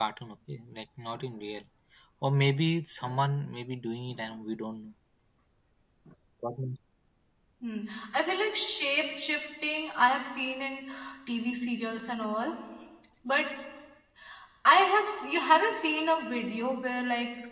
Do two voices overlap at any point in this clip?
No

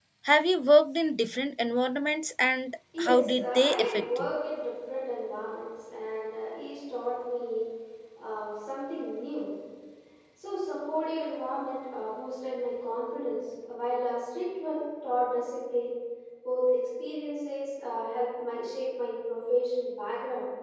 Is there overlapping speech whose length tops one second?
Yes, from 2.9 s

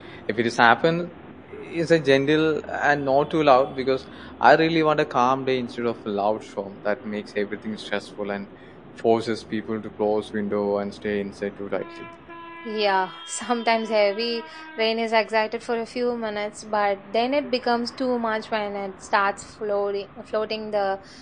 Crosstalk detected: No

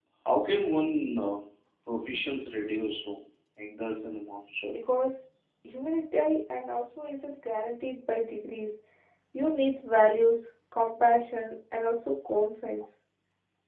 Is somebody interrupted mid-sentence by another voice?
No

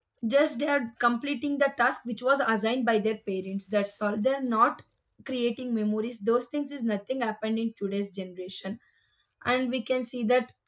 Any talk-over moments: No

